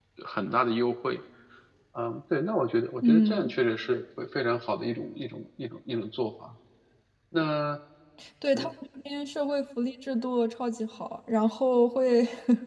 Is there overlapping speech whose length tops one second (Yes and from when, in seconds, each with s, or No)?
No